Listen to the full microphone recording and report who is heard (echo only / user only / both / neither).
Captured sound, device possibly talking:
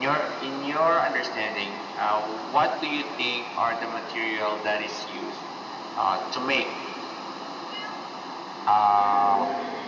both